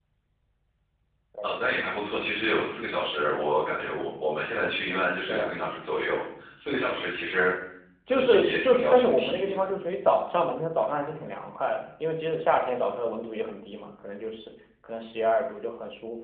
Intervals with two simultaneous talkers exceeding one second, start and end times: 8.1-9.7

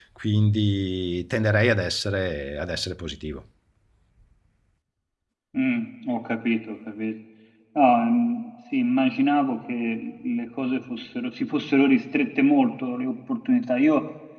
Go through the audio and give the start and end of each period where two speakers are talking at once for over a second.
none

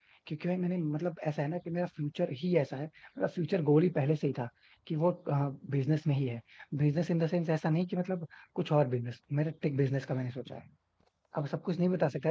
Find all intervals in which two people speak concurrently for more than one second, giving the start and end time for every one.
none

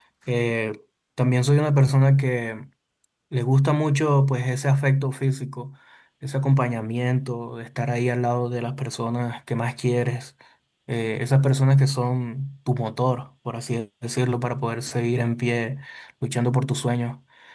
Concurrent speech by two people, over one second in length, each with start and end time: none

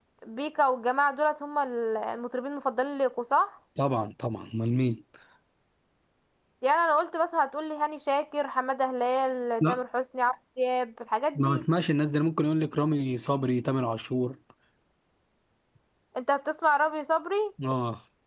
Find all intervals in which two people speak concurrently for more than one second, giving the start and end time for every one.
none

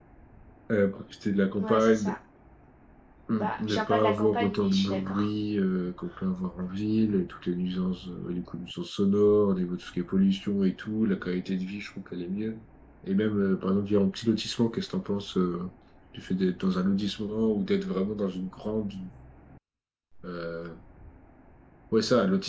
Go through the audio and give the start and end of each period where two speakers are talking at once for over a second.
3.3-5.3

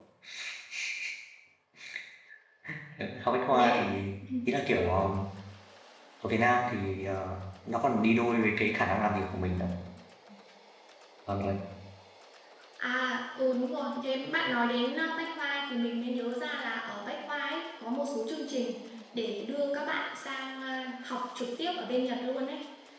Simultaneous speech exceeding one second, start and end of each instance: none

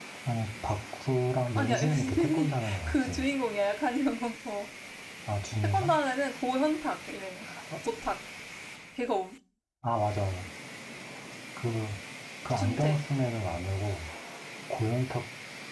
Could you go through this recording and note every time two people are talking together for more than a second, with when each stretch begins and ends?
1.6-3.2

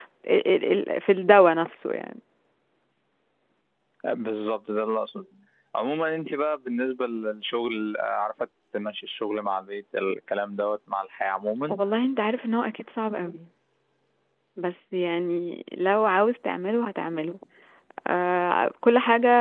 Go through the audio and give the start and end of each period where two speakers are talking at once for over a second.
none

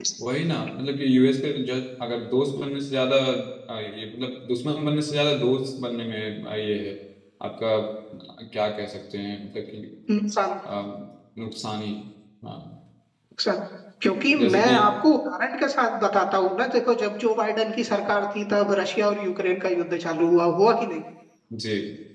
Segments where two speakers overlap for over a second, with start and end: none

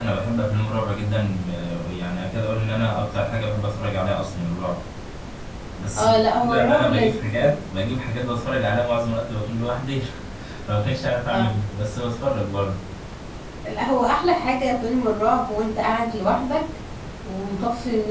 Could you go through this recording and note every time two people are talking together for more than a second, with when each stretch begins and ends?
6.0-7.5

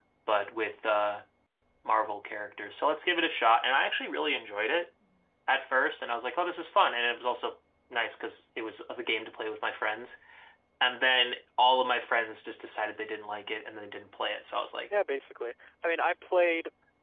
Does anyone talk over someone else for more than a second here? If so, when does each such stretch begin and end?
none

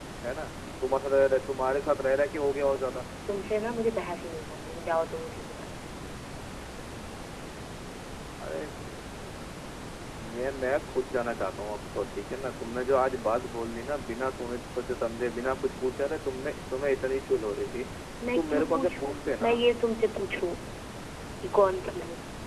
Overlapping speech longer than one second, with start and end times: 18.4-19.6

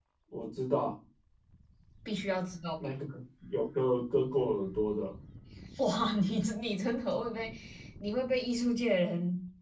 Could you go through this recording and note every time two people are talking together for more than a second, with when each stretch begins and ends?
none

